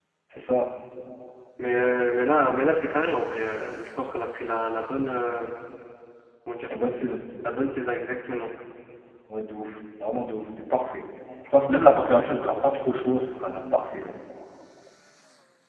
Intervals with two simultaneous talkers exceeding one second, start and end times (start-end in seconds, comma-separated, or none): none